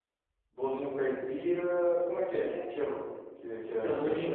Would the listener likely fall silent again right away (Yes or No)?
No